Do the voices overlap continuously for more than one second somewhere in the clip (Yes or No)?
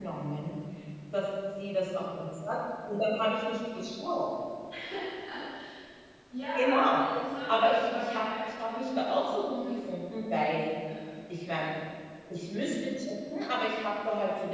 Yes